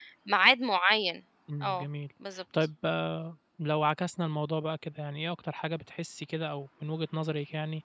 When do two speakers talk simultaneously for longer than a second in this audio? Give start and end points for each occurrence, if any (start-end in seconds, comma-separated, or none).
none